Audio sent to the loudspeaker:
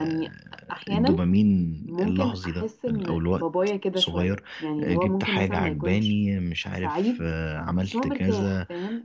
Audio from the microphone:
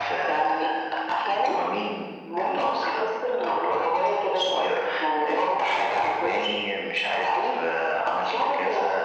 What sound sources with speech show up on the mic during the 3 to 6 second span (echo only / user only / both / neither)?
echo only